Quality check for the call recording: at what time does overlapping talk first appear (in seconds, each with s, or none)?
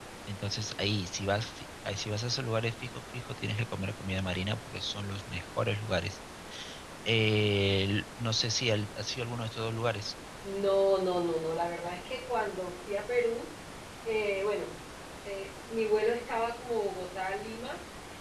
none